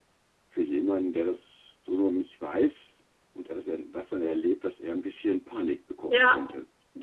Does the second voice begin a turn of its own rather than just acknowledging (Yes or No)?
Yes